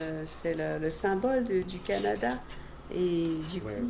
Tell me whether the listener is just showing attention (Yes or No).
Yes